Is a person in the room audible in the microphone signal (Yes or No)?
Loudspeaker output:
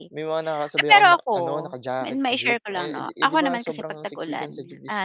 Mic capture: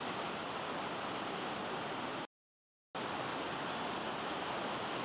No